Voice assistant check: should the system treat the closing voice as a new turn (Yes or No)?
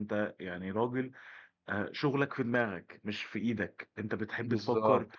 No